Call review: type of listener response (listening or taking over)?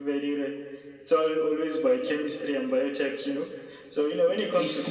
taking over